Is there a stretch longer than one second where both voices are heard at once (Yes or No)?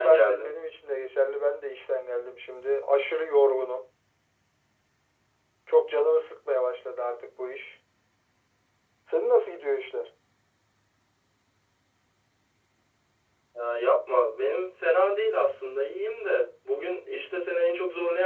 No